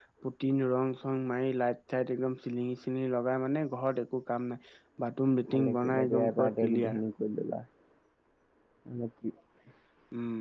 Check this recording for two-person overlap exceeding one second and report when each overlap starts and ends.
5.5-7.0

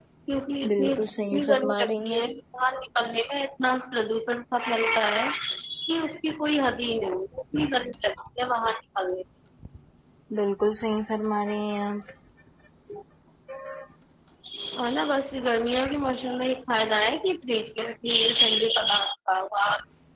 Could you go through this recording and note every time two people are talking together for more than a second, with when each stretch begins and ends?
0.7-2.2

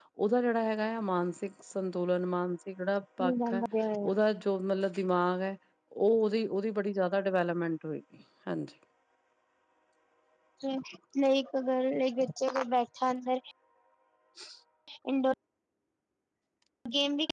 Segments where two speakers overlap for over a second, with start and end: none

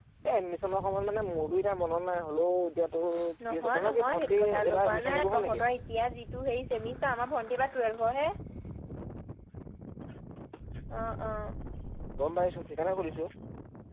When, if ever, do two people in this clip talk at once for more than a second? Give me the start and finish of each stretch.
3.5-5.6

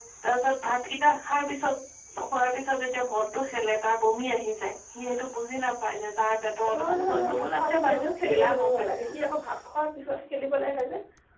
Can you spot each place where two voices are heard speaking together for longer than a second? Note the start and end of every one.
6.8-9.1

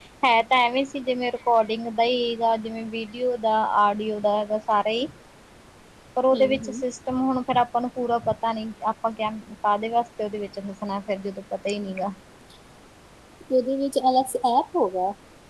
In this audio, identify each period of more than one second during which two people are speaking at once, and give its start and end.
none

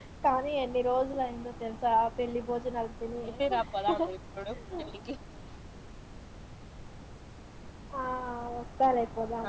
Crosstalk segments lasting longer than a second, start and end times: none

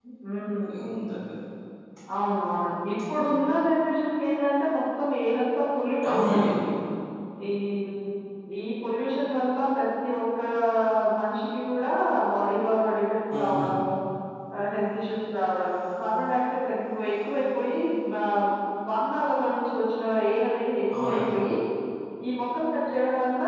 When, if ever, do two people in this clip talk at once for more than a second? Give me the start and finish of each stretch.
none

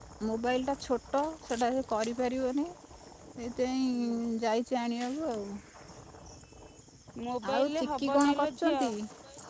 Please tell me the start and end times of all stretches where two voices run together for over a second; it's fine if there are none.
7.5-8.8

